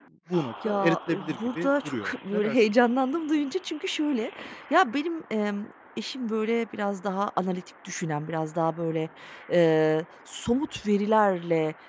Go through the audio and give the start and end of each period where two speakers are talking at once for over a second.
0.7-2.5

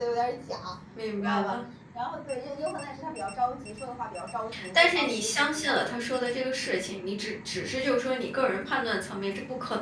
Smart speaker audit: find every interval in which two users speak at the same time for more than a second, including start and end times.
4.7-6.1

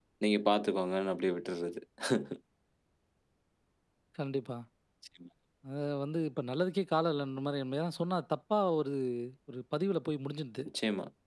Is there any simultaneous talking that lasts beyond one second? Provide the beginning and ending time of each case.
none

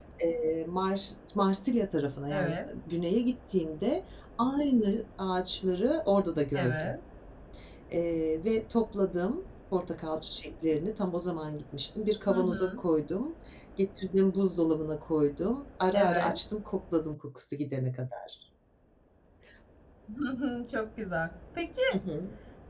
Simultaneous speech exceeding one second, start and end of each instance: none

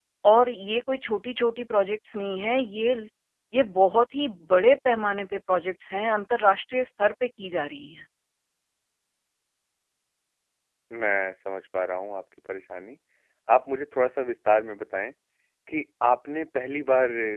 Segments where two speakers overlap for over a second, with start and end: none

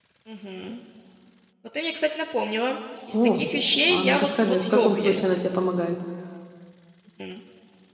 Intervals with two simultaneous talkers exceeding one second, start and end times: 3.9-5.5

